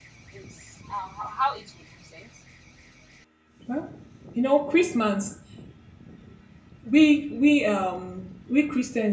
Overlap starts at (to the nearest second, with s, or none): none